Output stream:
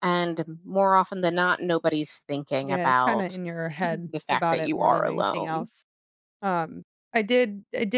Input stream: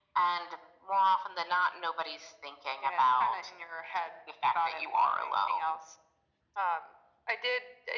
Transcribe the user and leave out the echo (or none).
none